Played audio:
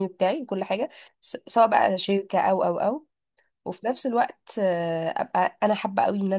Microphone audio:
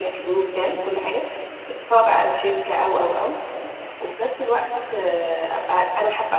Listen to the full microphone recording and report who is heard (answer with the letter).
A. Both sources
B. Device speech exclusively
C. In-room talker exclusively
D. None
B